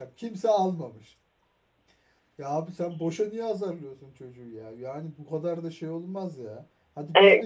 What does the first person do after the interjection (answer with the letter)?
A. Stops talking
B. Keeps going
A